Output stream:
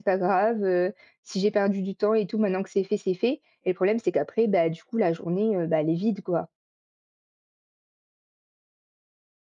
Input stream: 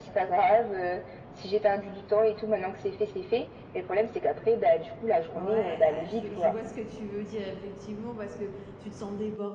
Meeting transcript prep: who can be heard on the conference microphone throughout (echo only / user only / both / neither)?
both